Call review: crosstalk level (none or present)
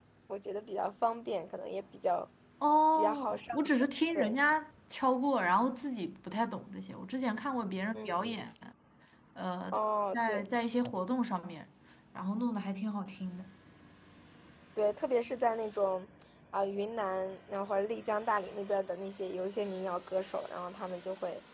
present